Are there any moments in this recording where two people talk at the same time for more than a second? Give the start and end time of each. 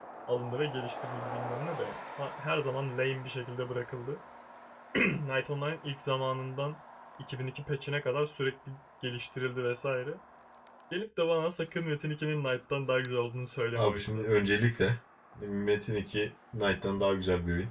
none

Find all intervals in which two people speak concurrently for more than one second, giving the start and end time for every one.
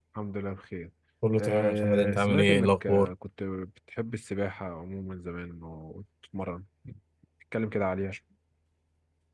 1.4-3.1

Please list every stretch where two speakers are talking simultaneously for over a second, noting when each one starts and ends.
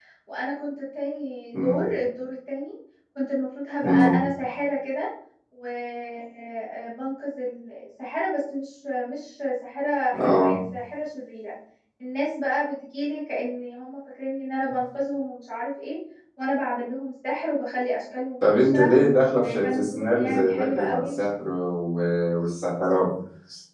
19.3-21.2

